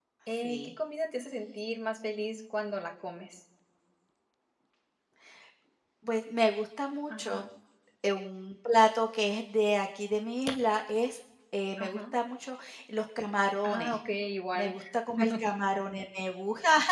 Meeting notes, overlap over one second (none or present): none